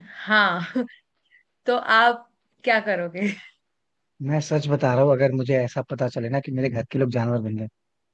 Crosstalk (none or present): none